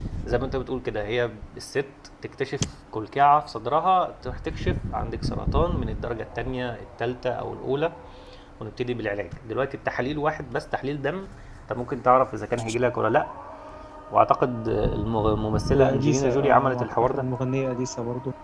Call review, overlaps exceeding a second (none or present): present